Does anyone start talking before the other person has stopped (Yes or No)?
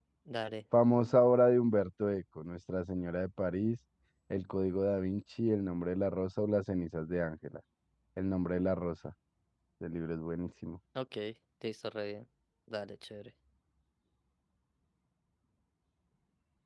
No